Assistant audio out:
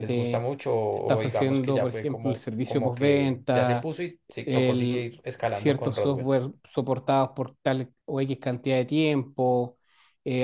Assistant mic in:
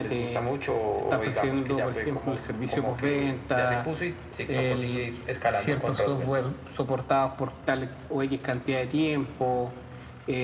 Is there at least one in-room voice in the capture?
No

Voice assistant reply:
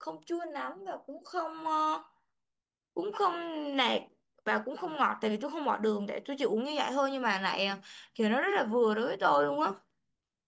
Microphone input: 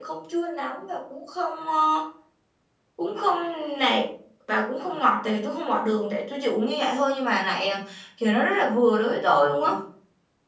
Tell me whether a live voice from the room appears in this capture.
No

